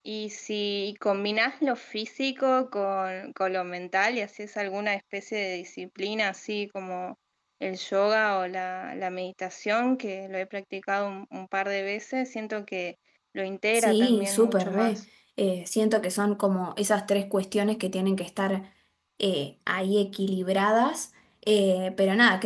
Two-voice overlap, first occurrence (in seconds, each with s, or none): 13.7 s